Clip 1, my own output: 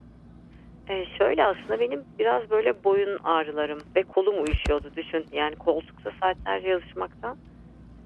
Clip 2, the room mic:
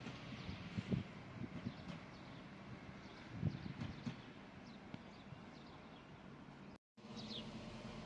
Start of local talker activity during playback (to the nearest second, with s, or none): none